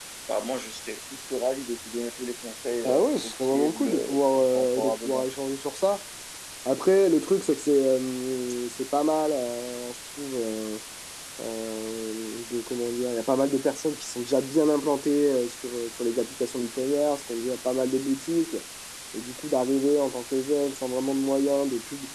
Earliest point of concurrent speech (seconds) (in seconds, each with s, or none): 2.8 s